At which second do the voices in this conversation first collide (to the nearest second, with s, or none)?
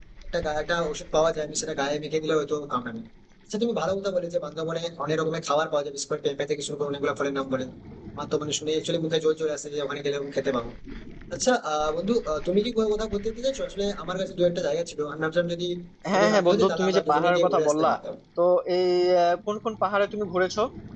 16 s